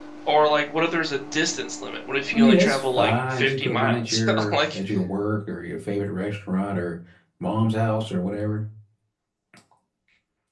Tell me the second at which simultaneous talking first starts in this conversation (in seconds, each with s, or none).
2.3 s